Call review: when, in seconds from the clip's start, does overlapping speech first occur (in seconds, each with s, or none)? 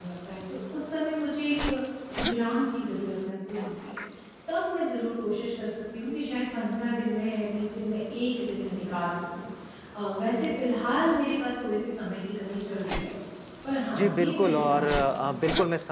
13.9 s